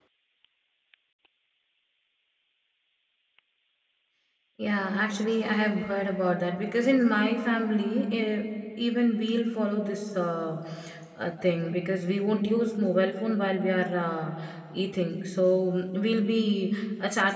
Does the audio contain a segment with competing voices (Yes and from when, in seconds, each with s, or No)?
No